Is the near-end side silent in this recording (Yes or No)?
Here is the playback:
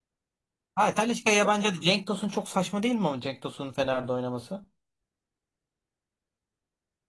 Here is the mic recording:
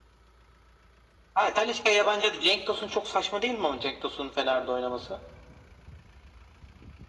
Yes